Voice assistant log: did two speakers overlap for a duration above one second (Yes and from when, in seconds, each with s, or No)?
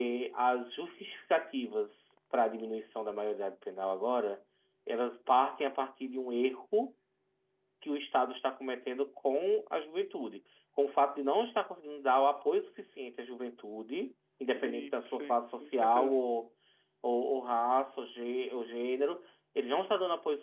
Yes, from 14.5 s